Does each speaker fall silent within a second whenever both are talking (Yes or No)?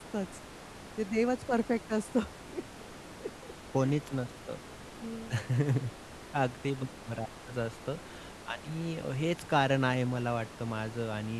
Yes